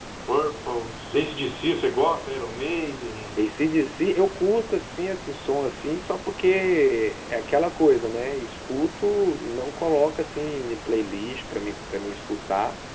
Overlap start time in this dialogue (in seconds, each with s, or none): none